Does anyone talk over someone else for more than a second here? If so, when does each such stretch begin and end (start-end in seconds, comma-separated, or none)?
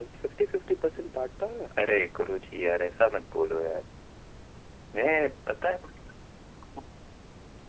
none